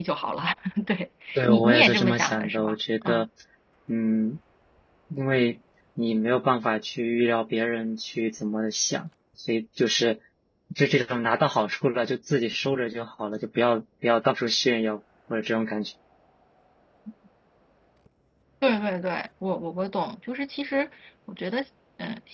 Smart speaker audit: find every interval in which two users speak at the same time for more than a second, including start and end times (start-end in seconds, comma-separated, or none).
1.4-3.2